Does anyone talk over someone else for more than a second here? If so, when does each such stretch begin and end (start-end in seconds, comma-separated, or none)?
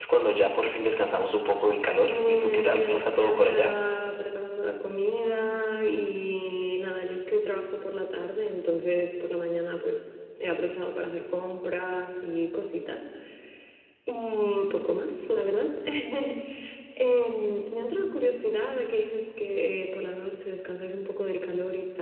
2.0-3.7